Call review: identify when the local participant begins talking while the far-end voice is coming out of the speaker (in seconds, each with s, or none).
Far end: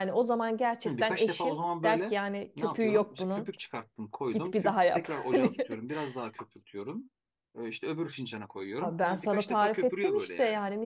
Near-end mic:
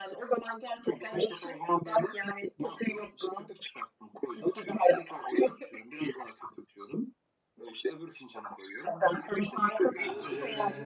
9.9 s